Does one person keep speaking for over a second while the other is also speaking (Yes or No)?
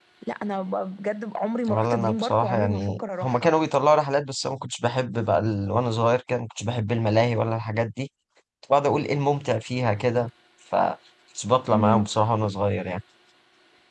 Yes